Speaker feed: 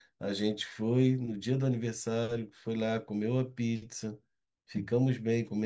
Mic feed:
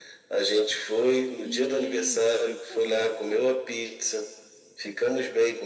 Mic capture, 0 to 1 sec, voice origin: echo only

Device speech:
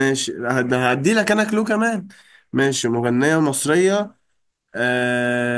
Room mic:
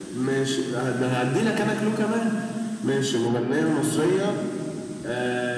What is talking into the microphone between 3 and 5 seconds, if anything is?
echo only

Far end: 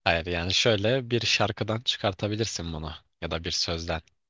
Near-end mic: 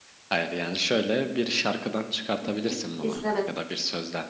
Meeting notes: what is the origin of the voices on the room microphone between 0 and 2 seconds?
echo only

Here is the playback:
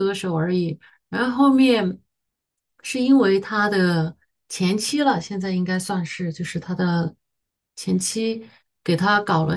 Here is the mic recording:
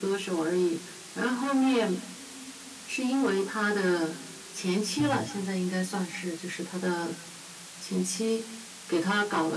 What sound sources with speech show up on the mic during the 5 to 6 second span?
both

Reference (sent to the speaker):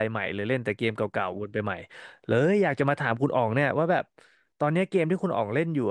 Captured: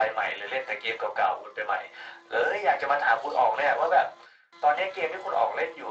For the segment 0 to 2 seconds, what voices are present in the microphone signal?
echo only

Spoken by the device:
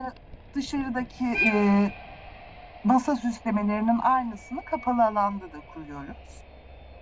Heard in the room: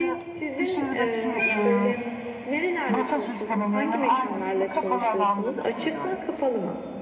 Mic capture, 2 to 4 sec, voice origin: both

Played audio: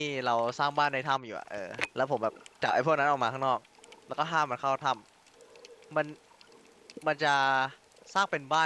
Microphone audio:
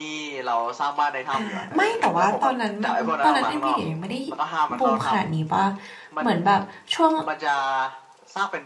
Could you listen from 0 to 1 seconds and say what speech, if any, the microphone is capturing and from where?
echo only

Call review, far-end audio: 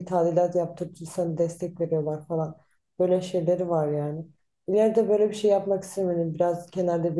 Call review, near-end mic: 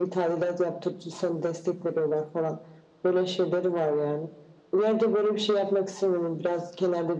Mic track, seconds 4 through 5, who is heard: echo only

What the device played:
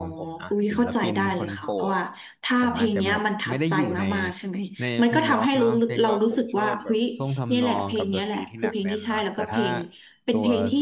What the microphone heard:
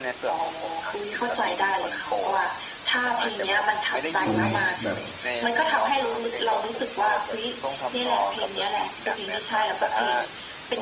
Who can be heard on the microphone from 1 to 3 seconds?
echo only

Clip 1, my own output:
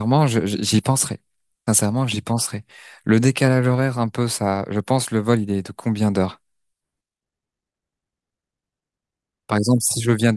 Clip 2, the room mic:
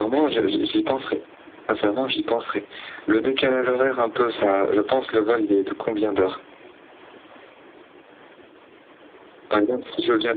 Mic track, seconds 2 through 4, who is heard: echo only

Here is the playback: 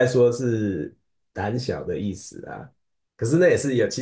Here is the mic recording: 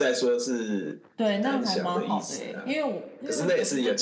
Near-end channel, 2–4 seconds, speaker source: both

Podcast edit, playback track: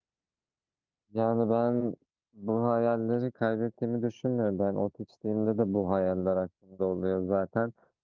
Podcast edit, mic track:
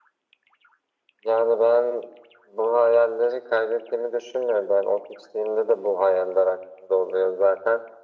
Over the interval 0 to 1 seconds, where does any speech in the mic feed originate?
neither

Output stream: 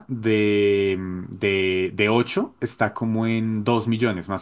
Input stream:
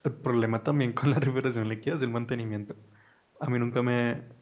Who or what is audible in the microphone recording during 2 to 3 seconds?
user only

